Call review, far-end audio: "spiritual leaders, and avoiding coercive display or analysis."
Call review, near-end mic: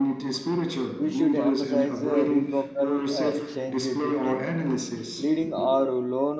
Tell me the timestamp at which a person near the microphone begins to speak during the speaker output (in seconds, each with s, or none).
1.0 s